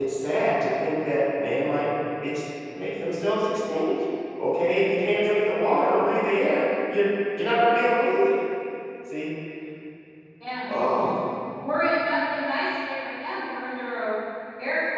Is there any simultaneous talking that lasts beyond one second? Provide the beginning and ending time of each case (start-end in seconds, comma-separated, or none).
none